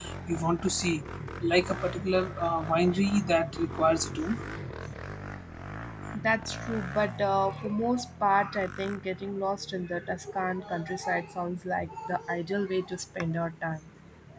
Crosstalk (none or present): none